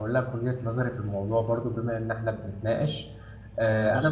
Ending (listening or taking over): listening